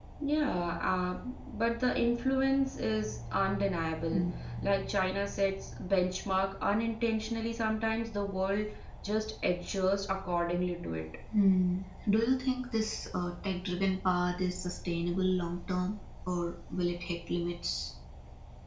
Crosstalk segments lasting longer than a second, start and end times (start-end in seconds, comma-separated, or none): none